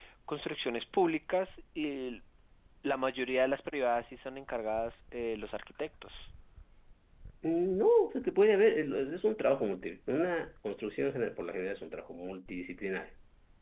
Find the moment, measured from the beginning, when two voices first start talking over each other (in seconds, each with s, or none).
none